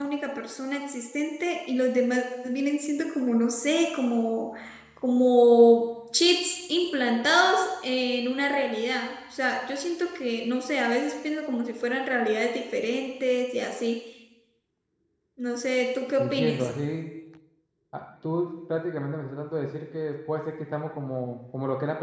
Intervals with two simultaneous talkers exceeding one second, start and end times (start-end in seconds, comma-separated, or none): none